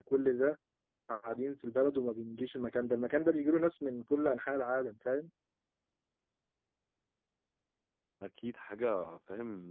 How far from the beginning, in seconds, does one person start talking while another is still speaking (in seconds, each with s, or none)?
none